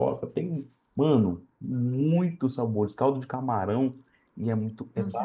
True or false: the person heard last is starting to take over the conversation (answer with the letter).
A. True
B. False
A